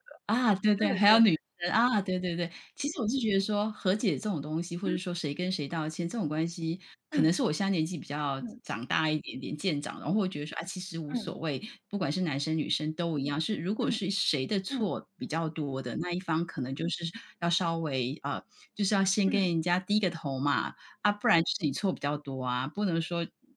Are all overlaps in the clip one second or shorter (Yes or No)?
Yes